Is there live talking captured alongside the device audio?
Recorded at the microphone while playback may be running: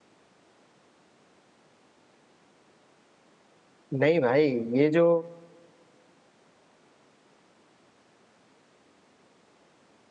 Yes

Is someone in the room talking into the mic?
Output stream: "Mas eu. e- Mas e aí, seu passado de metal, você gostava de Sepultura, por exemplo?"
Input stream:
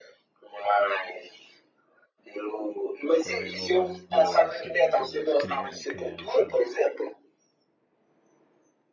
Yes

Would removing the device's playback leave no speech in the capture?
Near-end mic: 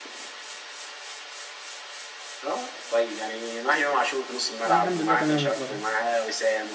No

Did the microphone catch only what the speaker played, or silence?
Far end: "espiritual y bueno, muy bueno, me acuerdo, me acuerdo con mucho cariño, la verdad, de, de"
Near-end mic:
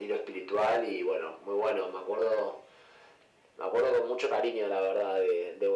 Yes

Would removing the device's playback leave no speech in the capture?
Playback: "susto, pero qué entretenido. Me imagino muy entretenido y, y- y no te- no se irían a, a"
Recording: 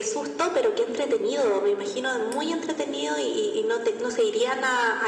Yes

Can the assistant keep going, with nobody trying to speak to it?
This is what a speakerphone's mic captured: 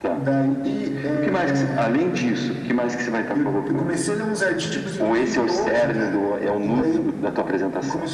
Yes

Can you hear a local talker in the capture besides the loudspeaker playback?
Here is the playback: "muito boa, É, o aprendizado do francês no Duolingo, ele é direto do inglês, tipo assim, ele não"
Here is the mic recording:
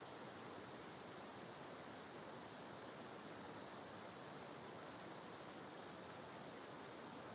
No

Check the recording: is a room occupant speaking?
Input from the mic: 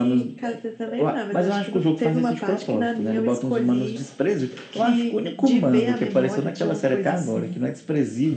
No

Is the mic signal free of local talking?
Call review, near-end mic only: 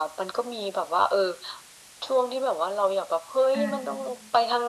No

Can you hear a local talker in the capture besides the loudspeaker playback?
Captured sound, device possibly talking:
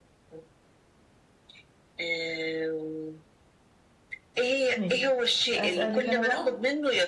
Yes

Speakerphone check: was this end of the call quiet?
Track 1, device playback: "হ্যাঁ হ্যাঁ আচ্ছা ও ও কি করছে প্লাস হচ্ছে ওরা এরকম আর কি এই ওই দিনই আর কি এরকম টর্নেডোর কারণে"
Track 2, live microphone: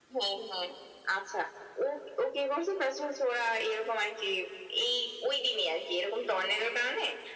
Yes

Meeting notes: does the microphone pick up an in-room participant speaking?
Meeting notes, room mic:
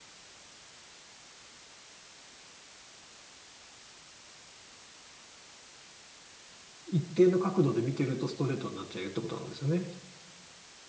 Yes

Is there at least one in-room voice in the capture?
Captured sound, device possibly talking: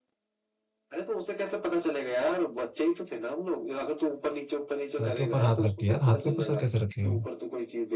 Yes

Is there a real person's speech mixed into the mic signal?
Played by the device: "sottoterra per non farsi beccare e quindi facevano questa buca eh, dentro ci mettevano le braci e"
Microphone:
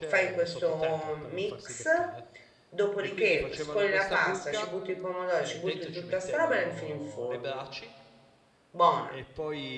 Yes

